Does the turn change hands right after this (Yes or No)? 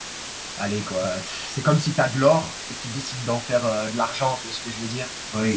Yes